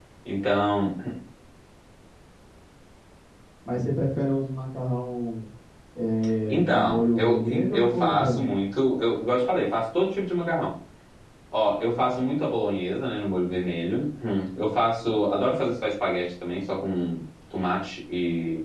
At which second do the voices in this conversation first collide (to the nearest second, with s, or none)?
6 s